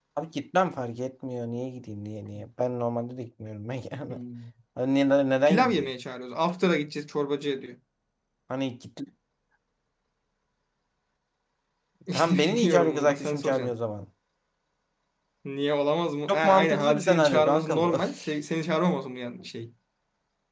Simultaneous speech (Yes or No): Yes